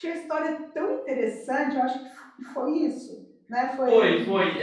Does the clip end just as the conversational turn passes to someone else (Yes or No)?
Yes